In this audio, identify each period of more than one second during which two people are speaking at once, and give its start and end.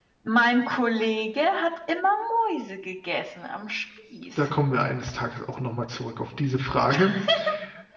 none

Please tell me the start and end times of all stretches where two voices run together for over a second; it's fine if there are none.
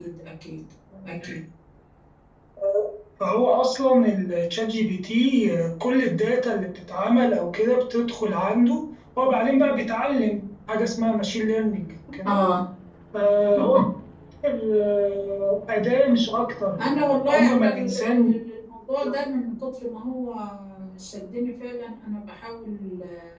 16.8-18.3

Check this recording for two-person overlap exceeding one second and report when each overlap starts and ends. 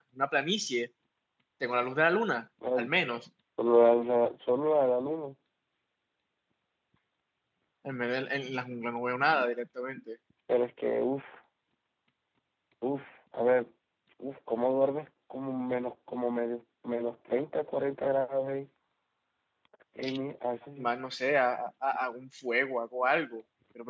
none

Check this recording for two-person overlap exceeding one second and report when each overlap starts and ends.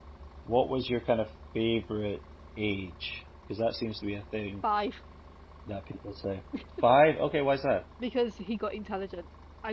none

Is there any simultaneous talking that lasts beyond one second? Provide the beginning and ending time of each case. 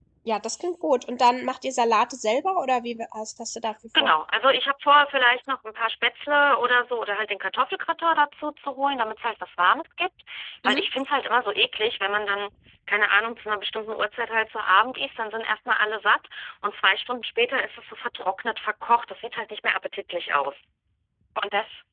none

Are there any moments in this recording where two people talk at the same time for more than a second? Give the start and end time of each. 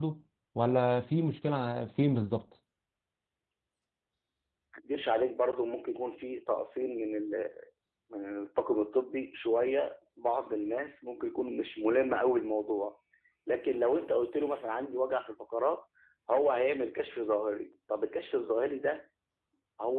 none

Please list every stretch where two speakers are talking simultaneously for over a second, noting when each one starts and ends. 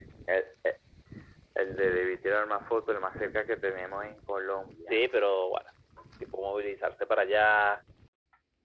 none

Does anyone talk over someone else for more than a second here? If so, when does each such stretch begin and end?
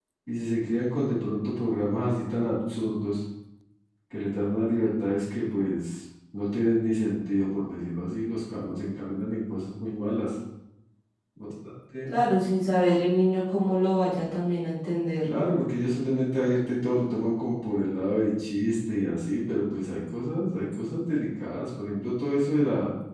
none

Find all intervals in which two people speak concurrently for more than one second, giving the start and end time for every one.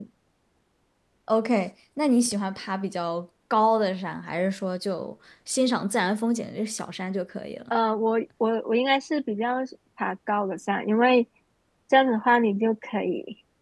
none

